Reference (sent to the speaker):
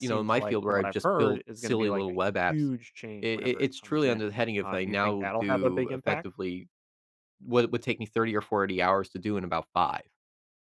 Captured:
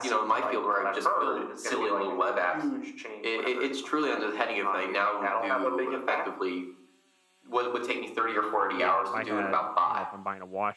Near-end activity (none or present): present